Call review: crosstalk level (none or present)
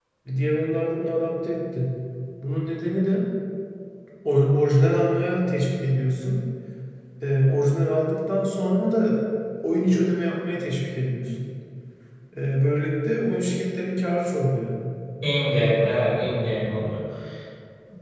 none